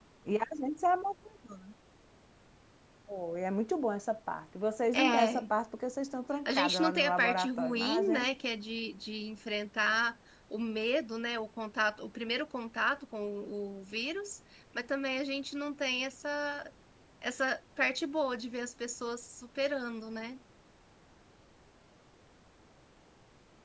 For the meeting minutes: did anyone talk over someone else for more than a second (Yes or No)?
Yes